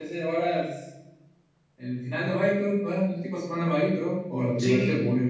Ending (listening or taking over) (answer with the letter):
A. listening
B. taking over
B